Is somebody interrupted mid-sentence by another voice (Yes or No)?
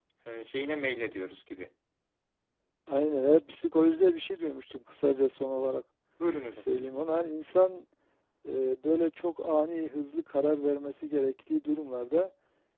No